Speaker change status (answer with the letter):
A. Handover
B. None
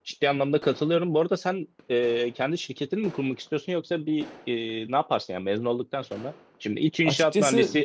B